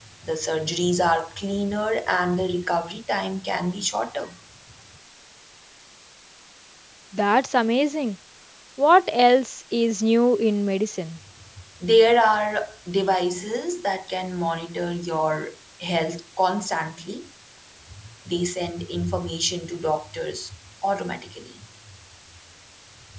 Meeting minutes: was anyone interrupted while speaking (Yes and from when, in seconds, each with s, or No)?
No